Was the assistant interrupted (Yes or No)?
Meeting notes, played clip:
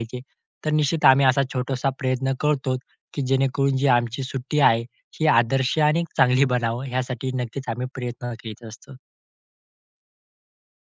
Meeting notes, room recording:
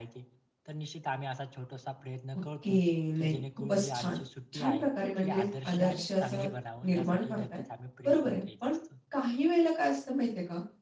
Yes